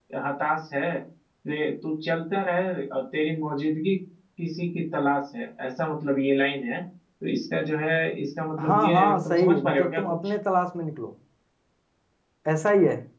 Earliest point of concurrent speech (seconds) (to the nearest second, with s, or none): 9 s